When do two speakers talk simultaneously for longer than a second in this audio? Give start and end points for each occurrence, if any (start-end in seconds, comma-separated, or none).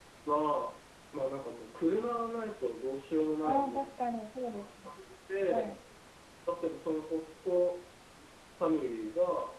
none